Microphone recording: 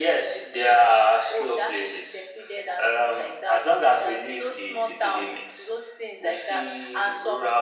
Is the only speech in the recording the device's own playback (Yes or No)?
Yes